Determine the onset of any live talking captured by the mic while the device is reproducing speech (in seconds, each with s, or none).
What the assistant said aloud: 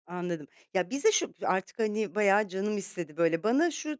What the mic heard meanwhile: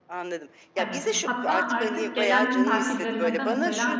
0.8 s